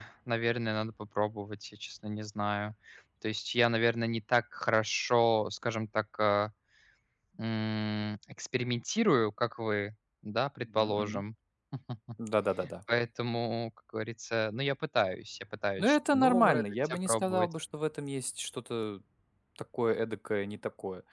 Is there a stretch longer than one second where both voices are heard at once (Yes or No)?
Yes